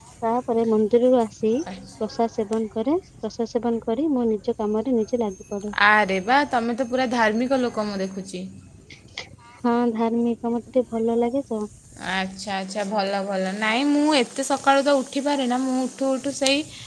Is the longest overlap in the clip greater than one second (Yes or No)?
No